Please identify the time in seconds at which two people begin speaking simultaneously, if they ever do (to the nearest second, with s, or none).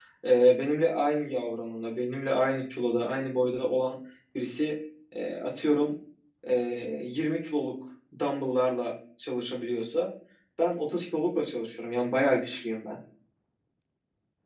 none